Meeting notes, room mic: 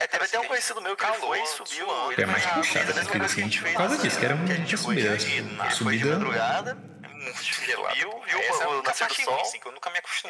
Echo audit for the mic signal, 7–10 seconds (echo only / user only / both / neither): echo only